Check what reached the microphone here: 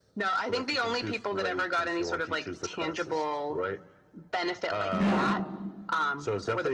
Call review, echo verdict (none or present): present